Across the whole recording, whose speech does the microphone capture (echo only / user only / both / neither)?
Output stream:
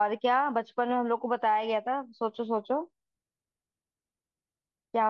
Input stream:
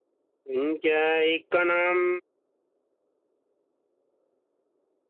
user only